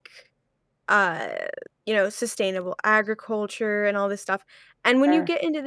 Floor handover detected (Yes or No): No